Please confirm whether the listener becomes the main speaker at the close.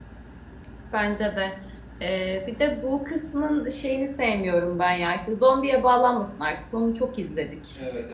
Yes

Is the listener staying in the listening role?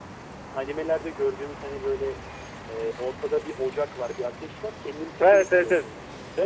No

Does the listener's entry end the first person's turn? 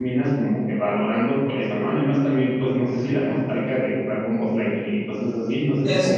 Yes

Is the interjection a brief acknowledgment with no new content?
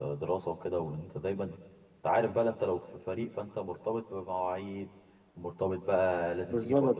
Yes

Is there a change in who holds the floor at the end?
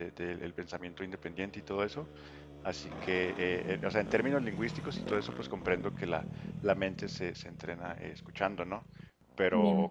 No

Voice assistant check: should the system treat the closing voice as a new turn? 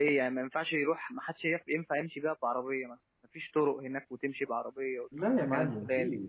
Yes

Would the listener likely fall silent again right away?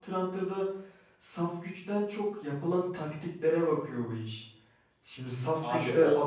Yes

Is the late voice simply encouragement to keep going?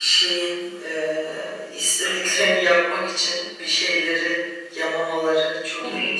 No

